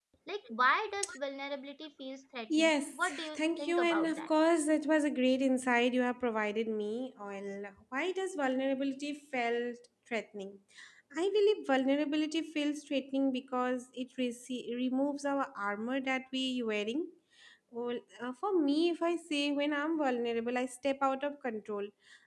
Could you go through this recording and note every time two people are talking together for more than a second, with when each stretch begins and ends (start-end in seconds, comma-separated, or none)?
2.6-4.3